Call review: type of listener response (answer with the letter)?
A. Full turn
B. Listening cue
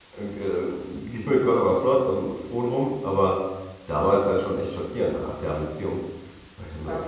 A